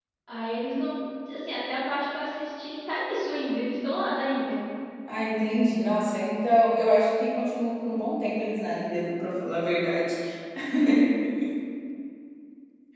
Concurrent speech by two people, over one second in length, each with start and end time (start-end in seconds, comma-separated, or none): none